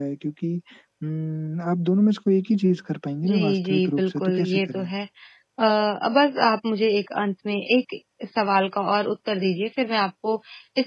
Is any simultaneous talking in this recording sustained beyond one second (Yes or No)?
Yes